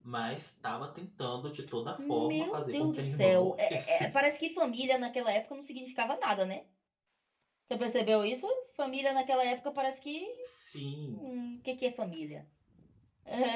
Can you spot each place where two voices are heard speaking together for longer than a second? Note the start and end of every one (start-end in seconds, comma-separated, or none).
2.0-4.2